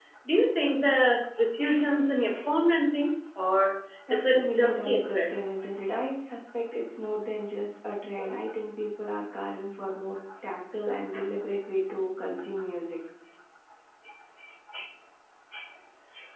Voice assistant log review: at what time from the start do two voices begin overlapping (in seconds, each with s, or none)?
4.1 s